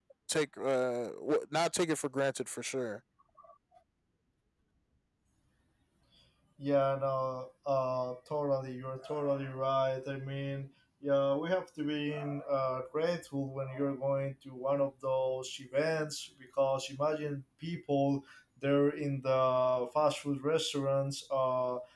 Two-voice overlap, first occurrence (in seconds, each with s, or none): none